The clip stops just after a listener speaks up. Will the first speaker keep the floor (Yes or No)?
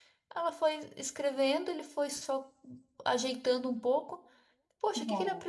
Yes